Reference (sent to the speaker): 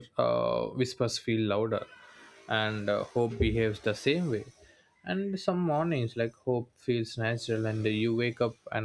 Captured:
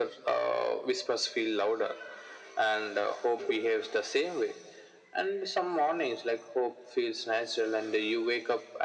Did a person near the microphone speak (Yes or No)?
No